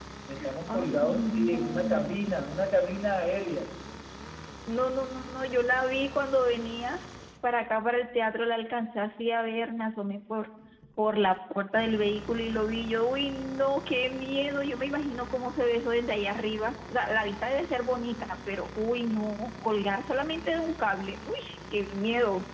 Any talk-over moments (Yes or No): Yes